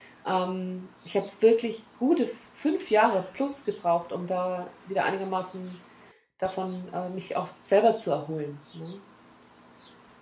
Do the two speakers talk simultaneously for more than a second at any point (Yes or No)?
No